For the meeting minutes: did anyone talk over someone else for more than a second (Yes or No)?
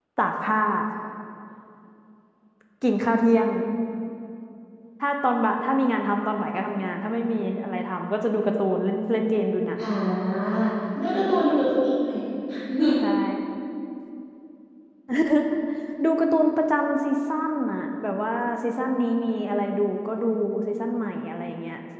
No